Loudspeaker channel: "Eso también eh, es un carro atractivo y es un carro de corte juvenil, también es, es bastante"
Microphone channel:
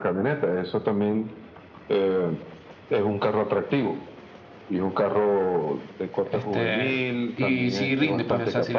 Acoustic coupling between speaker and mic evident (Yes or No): Yes